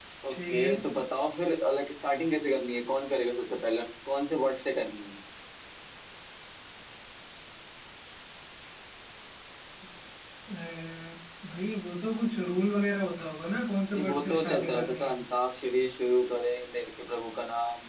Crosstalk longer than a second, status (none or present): present